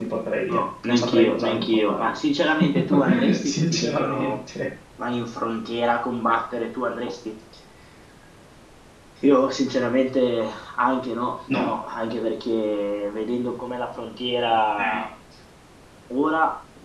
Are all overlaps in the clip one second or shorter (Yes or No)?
No